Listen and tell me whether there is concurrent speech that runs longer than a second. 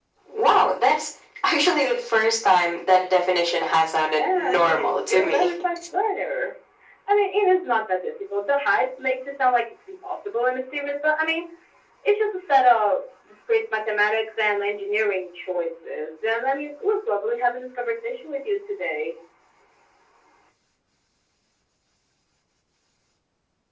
Yes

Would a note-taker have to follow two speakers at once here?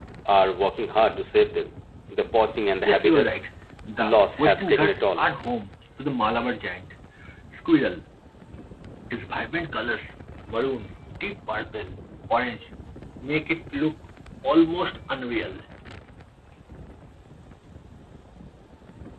Yes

